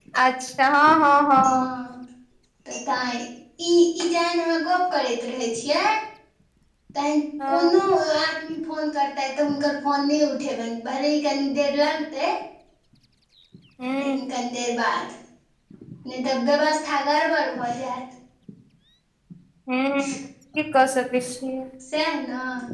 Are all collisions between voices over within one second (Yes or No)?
Yes